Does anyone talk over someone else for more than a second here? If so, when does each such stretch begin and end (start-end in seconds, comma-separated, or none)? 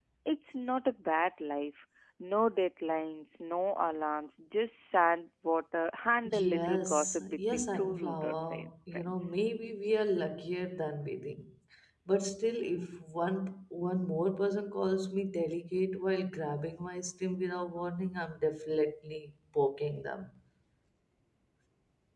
6.3-9.3